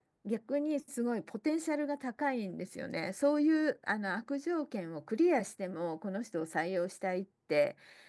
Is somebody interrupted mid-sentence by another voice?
No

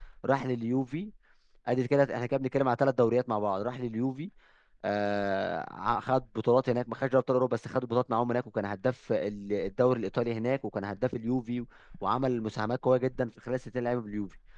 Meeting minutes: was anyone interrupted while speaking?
No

